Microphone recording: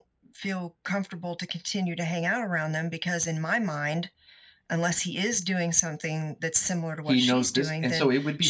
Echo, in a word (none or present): present